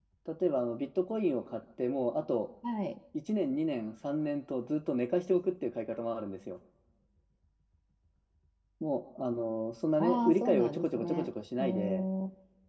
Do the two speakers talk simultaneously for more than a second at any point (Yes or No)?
Yes